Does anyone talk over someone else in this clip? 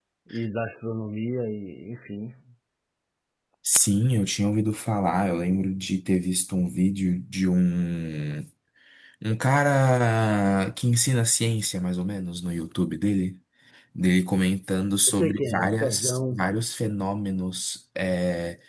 Yes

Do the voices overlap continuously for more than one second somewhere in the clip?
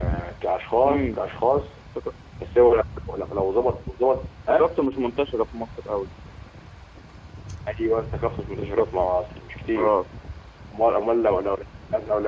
No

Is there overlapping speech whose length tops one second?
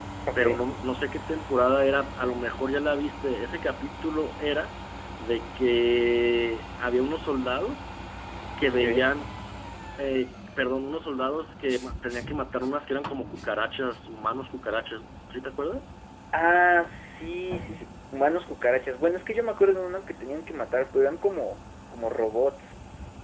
No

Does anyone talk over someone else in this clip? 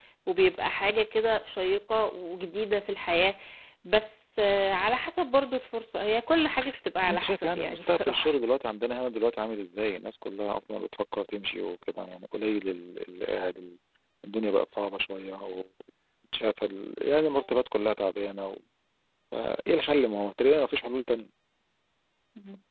Yes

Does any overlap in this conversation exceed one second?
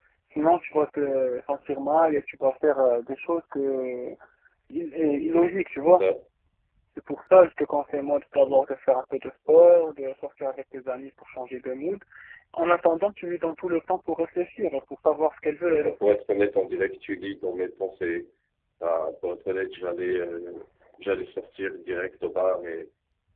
No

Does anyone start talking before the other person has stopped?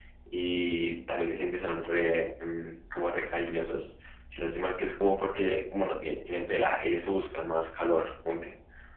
No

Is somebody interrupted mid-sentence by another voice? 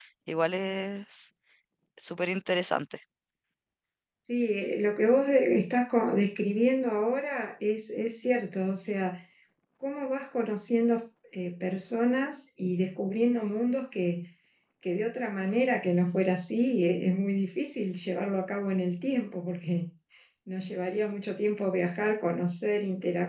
No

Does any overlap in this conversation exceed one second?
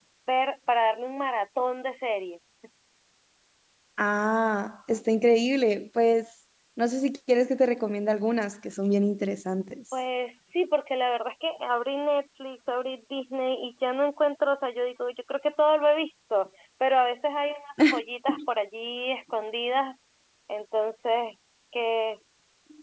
No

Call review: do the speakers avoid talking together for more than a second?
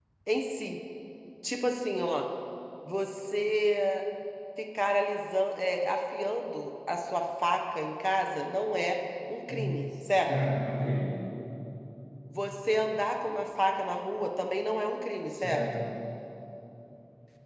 Yes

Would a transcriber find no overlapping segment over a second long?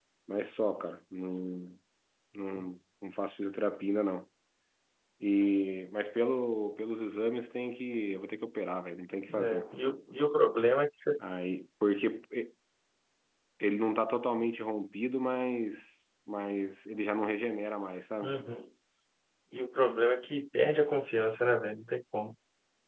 Yes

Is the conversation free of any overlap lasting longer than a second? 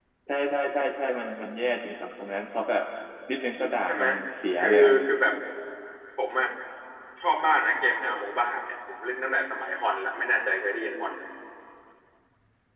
Yes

